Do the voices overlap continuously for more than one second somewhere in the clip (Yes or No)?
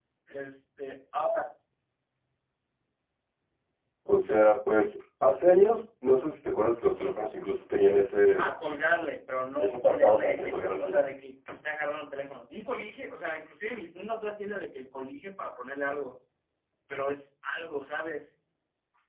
Yes